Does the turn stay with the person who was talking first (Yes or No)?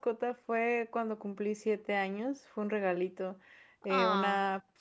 Yes